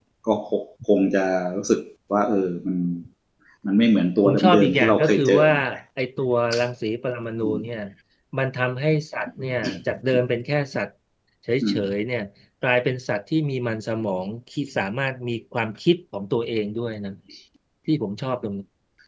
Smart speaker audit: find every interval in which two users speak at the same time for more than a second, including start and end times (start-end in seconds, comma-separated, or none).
4.2-5.5